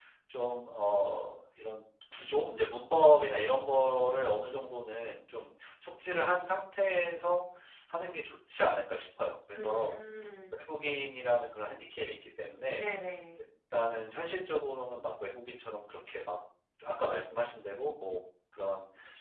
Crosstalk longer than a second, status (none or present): none